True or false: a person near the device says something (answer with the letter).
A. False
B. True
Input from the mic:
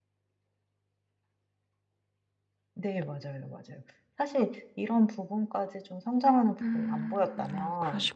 B